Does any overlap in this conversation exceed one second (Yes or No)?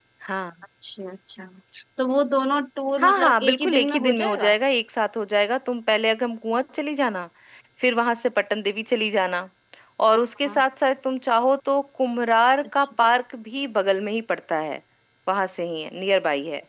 Yes